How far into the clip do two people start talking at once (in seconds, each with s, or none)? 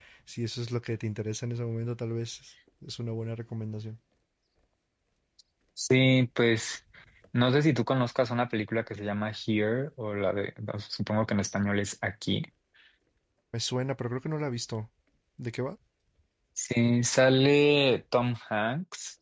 none